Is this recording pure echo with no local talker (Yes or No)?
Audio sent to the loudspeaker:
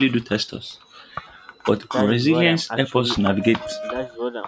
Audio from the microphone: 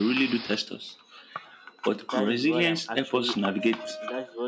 Yes